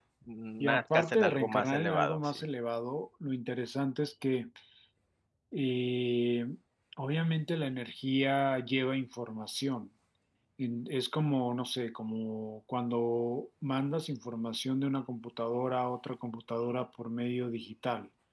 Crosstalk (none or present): present